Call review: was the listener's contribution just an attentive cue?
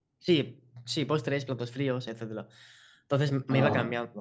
Yes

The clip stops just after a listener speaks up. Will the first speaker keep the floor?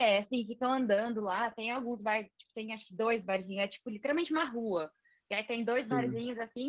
Yes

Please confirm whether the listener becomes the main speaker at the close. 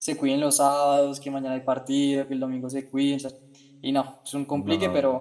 No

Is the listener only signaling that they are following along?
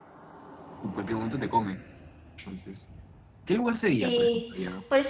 No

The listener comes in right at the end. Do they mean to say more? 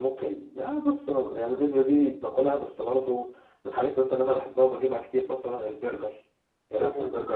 Yes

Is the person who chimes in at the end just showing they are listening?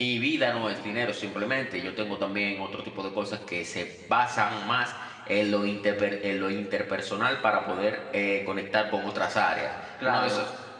Yes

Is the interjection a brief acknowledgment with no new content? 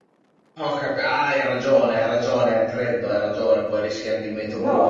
No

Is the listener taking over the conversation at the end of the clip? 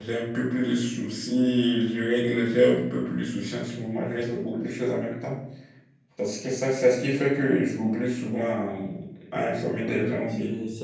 Yes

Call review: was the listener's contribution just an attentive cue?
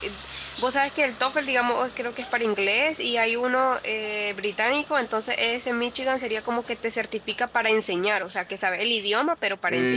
No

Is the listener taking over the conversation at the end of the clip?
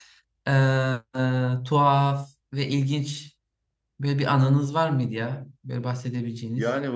Yes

